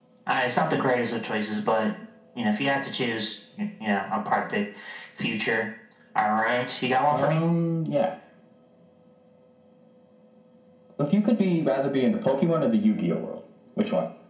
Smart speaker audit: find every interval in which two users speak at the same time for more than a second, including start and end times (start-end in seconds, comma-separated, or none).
none